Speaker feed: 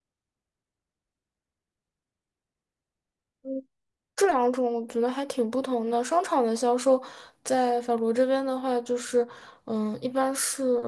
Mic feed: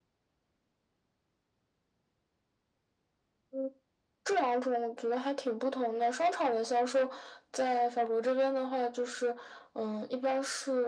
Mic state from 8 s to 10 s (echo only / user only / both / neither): echo only